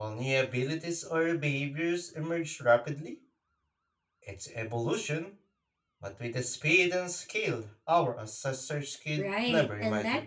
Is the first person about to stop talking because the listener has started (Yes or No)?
Yes